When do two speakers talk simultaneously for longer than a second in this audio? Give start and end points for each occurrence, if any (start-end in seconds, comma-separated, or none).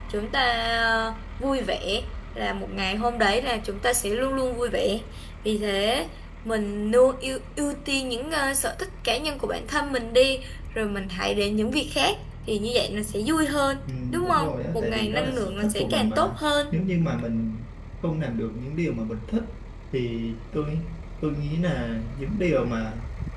13.9-16.4